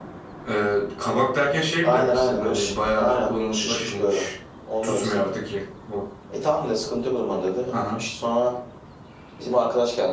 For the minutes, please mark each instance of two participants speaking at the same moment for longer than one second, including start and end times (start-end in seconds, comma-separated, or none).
1.8-4.2